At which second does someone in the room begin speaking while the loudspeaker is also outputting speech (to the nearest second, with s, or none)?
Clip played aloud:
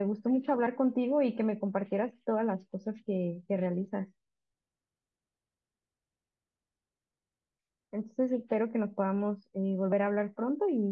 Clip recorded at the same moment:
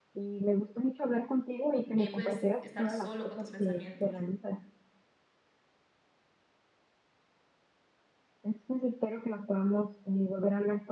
2 s